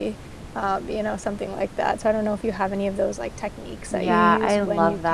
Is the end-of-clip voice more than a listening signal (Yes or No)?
Yes